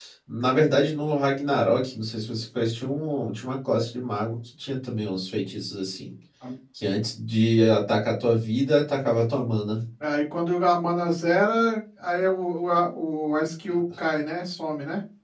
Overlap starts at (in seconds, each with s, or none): none